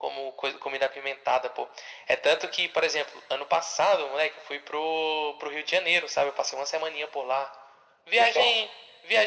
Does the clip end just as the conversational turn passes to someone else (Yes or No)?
No